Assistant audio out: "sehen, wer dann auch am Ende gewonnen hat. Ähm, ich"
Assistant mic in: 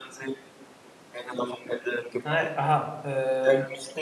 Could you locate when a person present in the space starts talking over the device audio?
2.2 s

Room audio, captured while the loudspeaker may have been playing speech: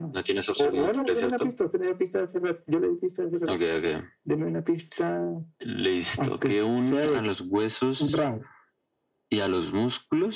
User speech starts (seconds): none

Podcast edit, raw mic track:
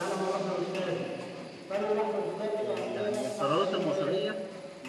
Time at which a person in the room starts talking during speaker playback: 2.6 s

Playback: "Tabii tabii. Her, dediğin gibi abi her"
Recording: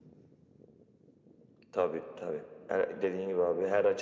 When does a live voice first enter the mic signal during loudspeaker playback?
none

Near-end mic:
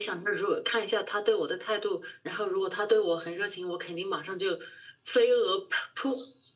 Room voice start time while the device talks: none

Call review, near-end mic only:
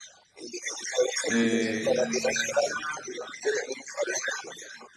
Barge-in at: 1.3 s

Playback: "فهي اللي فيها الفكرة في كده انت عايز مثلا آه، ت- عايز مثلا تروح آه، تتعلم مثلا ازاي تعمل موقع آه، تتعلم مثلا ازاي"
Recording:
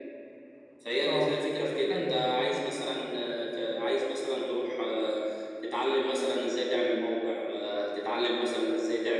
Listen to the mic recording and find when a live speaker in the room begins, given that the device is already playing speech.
1.1 s

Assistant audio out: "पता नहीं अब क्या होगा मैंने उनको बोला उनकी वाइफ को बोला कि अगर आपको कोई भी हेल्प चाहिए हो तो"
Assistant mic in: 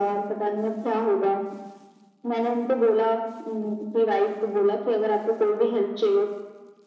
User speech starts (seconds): none

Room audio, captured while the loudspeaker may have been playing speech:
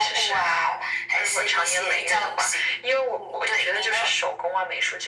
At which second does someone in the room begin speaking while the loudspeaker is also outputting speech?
none

